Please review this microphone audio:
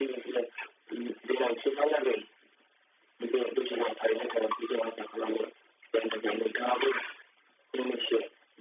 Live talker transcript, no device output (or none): none